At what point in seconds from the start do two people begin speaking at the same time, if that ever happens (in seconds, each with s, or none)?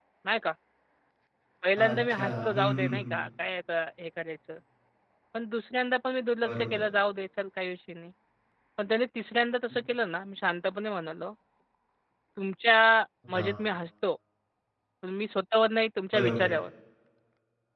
1.8 s